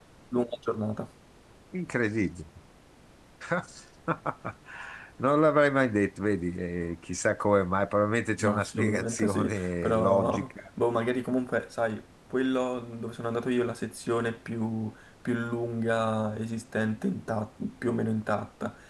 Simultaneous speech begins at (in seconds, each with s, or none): 8.4 s